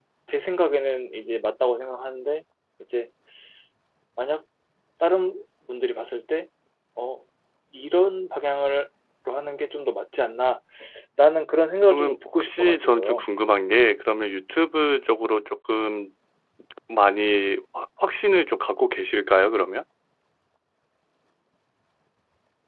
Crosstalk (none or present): present